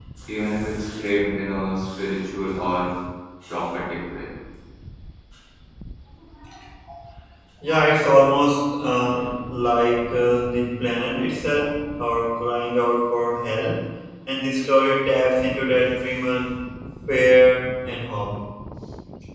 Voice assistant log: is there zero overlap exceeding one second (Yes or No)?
Yes